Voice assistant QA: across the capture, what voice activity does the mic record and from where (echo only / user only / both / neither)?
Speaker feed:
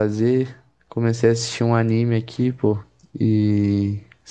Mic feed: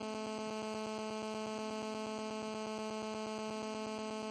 neither